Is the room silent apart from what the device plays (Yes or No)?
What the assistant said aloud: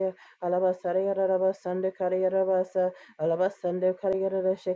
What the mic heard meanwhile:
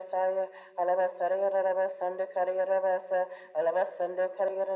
Yes